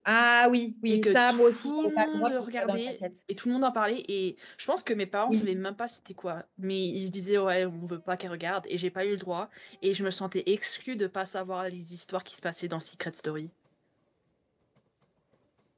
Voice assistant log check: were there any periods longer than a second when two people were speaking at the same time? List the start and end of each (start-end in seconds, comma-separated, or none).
0.9-3.0